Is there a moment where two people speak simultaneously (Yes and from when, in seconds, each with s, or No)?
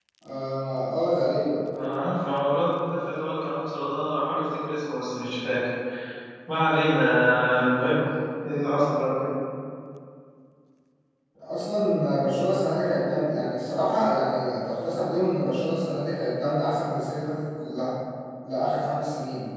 No